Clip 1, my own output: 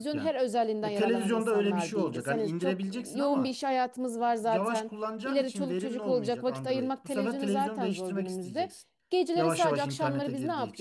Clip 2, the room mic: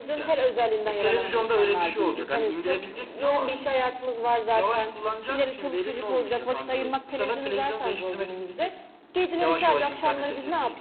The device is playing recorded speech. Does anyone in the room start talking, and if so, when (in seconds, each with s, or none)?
none